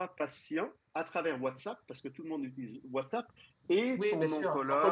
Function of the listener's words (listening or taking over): taking over